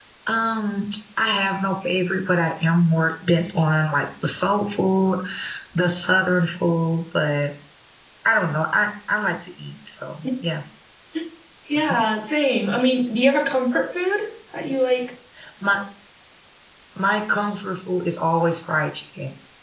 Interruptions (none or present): none